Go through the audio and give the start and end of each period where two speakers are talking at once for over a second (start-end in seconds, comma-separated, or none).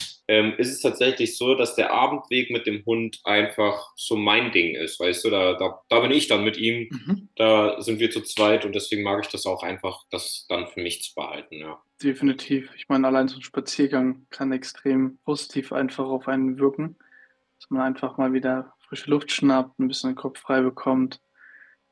none